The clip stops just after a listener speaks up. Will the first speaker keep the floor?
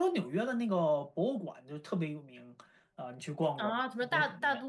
No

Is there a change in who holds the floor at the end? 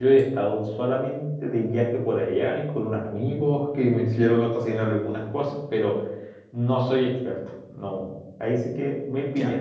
Yes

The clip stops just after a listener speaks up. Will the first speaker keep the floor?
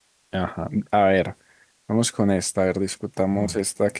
Yes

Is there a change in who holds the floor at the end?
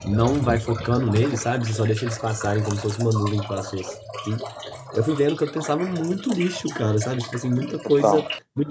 No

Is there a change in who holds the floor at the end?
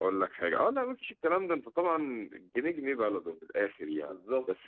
No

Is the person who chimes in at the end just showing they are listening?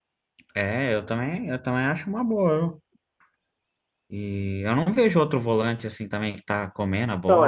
No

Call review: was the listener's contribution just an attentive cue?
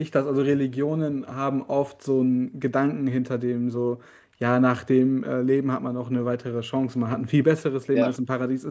Yes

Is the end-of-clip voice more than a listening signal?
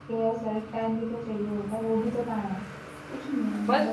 Yes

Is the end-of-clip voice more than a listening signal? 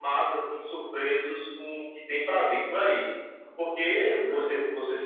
No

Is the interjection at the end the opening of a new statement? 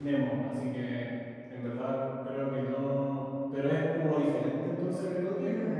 Yes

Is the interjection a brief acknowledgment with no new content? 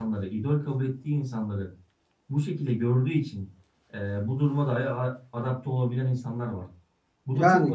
No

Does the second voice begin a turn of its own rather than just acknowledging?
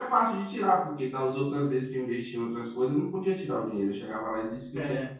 No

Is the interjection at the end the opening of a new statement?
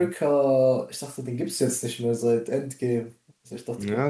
Yes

